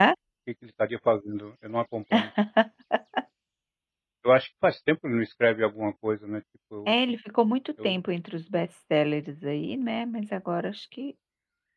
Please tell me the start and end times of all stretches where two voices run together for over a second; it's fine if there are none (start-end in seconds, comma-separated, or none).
none